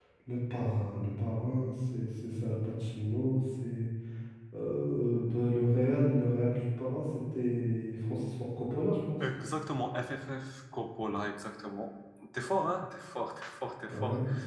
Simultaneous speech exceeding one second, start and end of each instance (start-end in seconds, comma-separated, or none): none